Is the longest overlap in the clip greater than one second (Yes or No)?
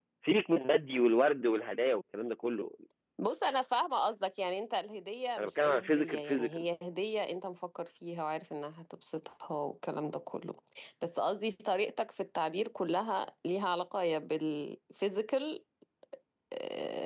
Yes